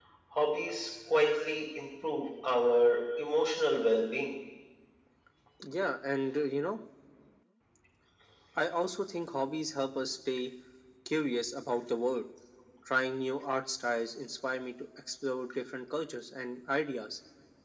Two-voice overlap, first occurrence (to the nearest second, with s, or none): none